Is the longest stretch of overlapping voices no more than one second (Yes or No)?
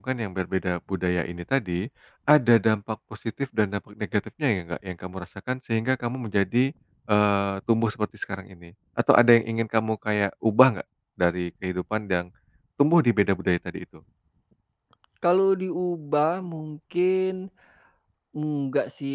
Yes